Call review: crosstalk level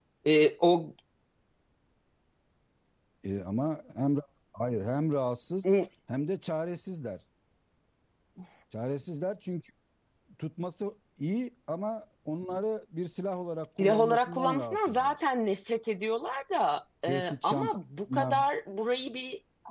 present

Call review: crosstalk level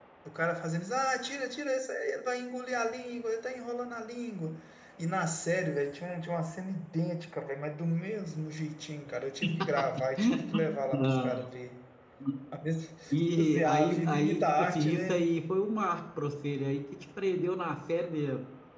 present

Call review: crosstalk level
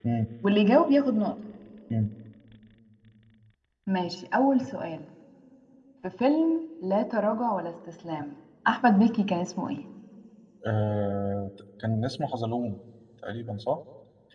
none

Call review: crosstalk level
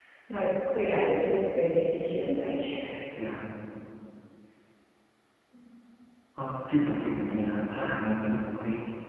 none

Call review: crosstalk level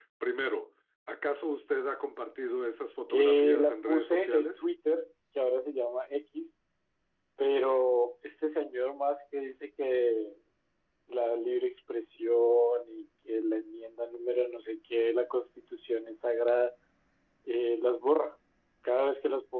present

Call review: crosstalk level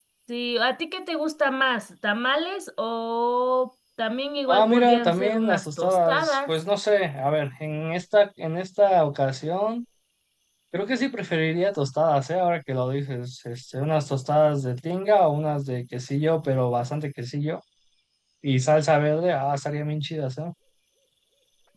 present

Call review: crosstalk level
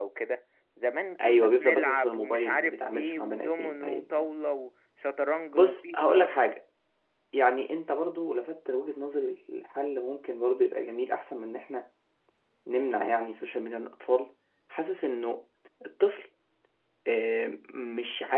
present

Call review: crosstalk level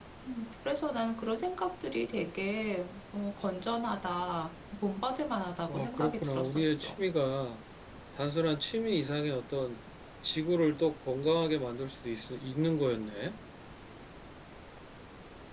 present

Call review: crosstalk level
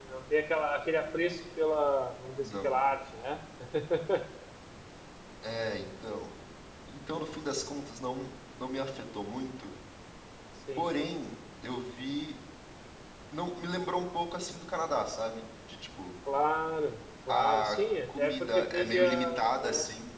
present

